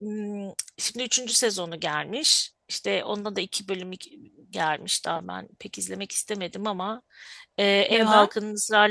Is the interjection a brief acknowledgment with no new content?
Yes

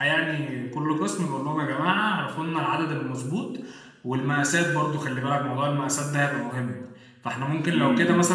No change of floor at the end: Yes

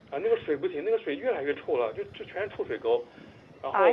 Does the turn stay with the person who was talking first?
Yes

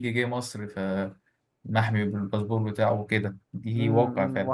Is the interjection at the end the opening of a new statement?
Yes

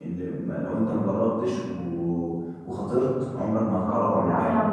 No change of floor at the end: No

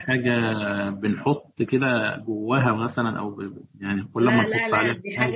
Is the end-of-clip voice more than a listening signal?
Yes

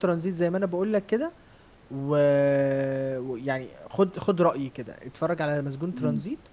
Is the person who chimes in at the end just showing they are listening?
No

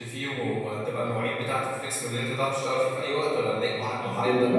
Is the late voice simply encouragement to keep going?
No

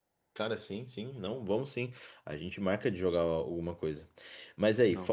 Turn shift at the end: No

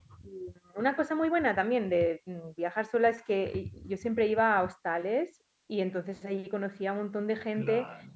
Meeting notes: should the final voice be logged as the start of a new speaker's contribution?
No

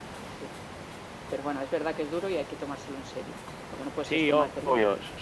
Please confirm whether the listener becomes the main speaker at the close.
Yes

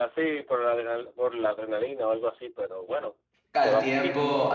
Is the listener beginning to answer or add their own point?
Yes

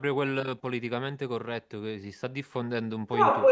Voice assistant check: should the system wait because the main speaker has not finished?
No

